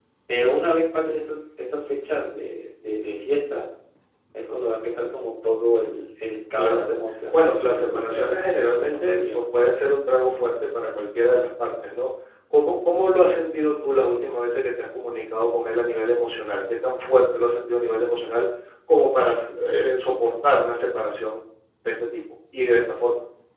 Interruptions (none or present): present